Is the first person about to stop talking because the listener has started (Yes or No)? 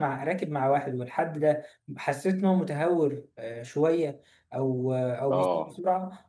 No